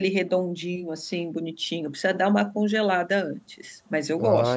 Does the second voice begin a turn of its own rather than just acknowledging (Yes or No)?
Yes